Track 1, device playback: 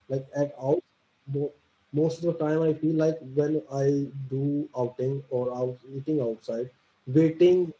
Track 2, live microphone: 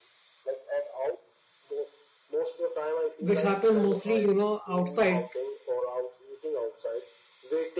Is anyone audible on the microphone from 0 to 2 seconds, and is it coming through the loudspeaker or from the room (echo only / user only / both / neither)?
echo only